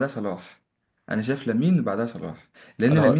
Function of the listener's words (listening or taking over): listening